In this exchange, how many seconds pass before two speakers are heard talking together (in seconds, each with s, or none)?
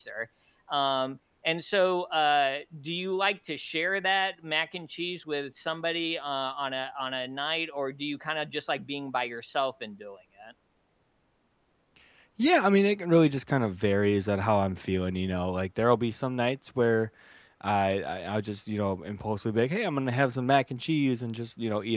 none